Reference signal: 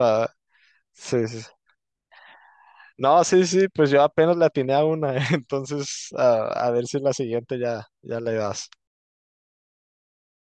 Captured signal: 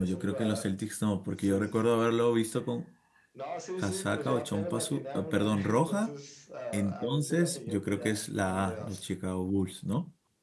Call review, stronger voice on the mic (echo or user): user